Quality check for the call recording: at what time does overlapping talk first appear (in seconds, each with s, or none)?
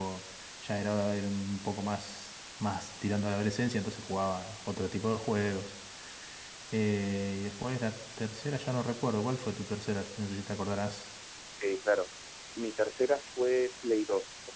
none